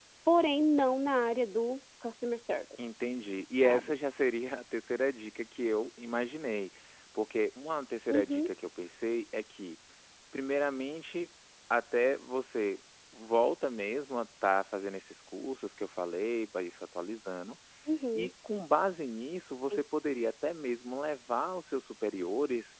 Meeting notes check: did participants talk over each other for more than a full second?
No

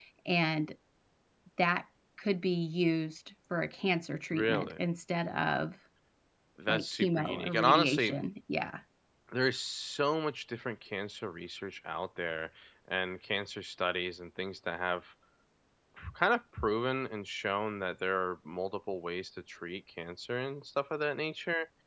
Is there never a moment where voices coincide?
No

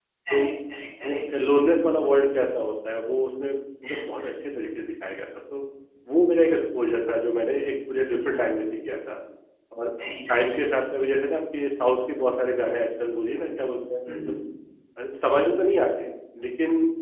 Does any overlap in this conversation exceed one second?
No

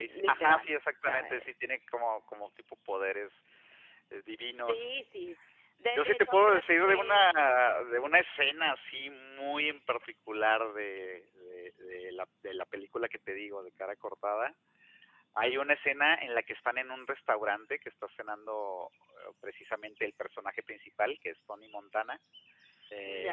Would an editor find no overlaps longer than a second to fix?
No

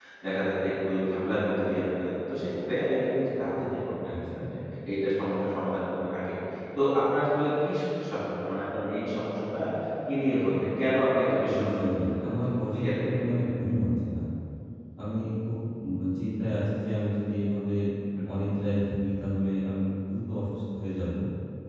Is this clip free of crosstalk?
No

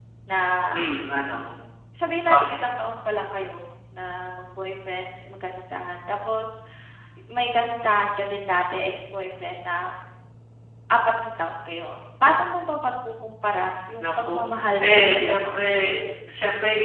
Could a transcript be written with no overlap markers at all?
No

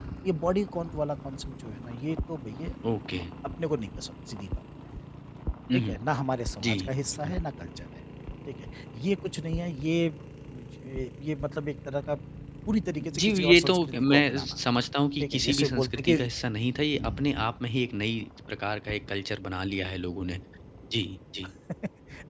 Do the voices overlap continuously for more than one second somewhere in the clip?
Yes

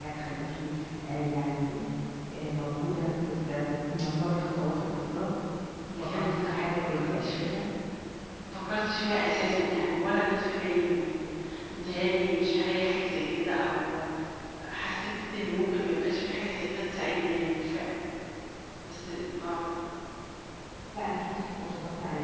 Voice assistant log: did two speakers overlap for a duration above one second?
Yes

